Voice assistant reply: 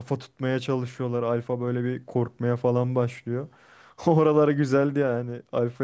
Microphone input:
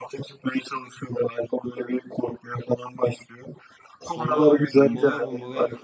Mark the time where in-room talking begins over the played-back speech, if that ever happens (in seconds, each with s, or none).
4.0 s